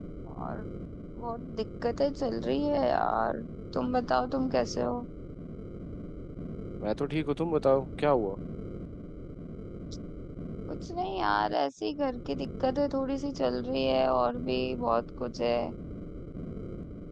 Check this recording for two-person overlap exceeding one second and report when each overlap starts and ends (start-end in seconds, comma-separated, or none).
none